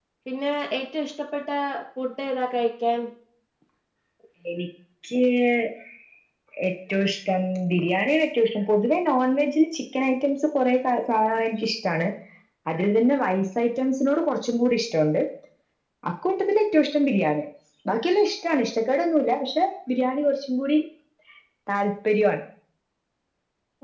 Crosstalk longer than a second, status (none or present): none